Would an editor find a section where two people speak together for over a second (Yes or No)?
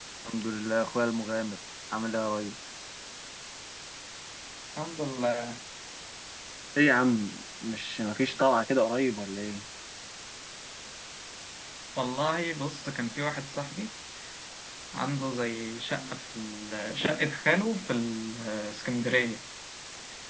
No